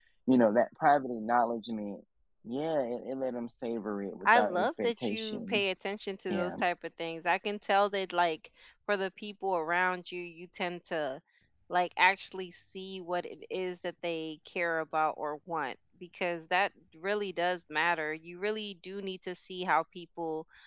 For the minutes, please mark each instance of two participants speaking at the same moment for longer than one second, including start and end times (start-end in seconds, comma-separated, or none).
4.2-5.6